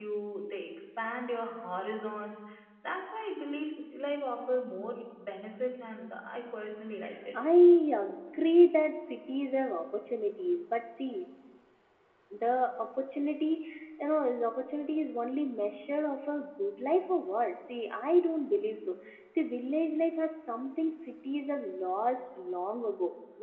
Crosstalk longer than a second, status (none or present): none